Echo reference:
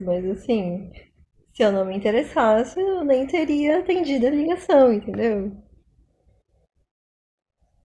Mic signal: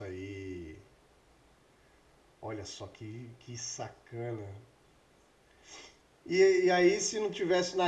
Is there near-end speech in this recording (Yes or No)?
Yes